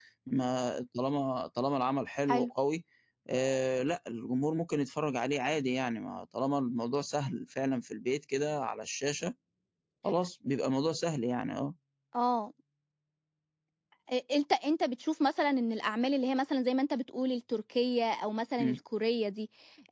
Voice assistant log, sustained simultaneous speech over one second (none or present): none